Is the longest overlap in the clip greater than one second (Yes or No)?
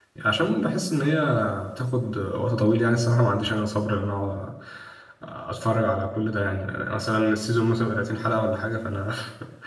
No